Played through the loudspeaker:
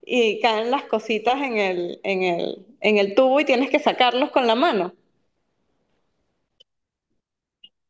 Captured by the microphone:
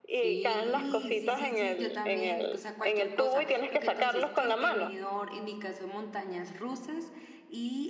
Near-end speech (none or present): present